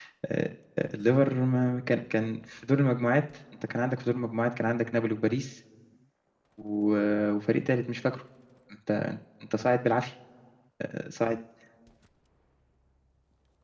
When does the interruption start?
none

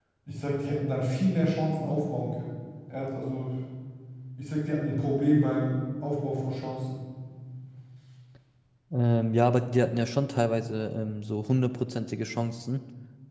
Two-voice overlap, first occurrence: none

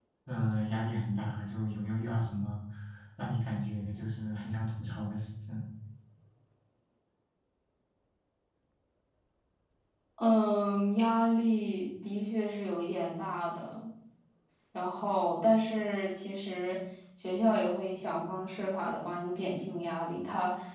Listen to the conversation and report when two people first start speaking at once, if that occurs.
none

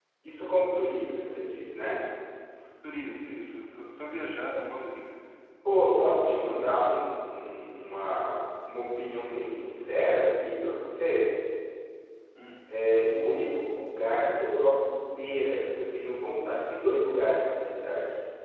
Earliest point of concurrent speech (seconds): none

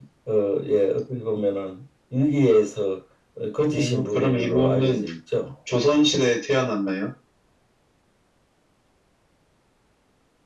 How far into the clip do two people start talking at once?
3.7 s

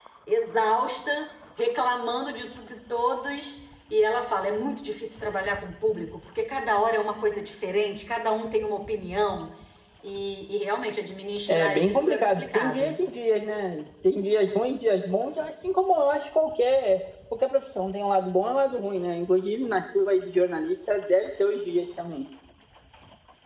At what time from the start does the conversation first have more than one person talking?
11.5 s

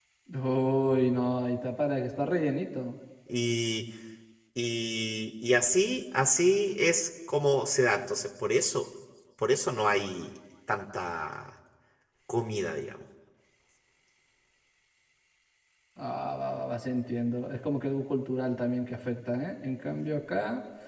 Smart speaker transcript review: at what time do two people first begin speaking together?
none

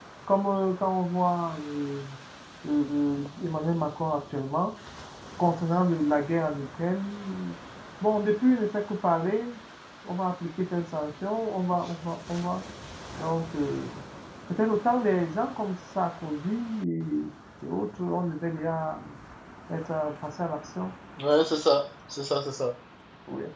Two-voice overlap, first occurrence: none

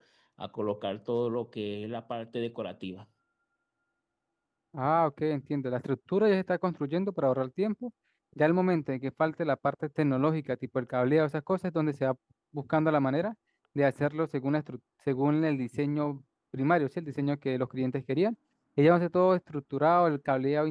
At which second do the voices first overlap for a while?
none

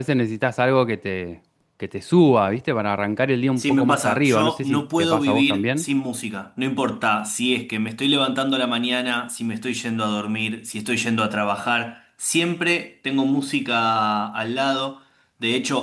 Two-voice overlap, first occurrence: 3.6 s

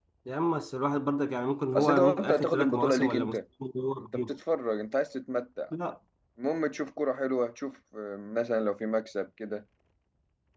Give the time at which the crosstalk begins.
1.8 s

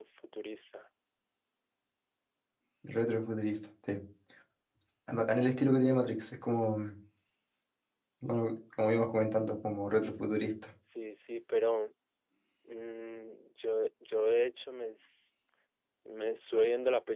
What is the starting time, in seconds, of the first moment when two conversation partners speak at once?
none

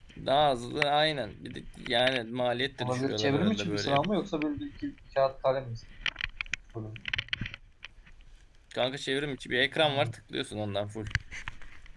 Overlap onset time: 2.8 s

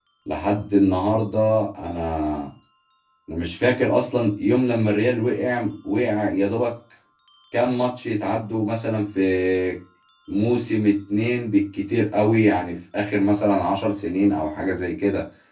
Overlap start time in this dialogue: none

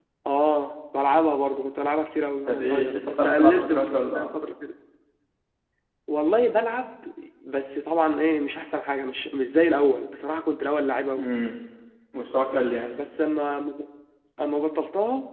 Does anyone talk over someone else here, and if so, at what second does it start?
2.5 s

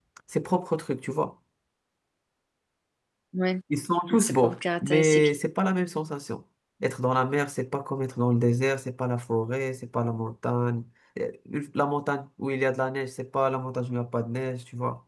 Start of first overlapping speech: 4.1 s

